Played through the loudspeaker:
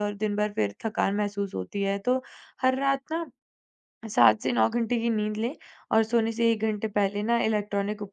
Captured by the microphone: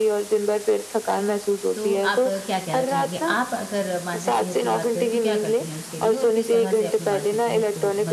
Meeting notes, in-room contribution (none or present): present